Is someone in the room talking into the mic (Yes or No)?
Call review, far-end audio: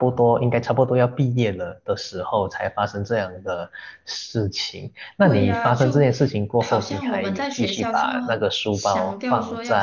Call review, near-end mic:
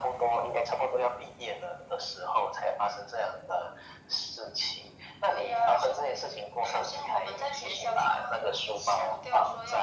No